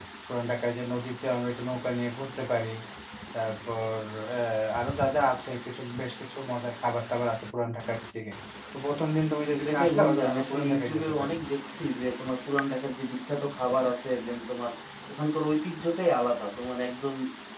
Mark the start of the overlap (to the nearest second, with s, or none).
10 s